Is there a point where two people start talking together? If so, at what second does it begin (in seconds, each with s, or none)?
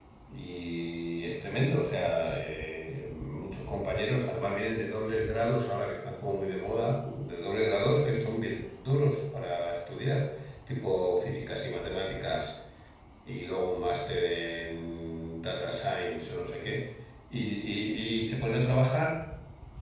none